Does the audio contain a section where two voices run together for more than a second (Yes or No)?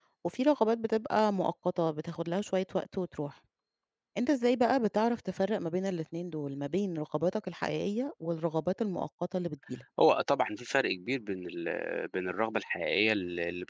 No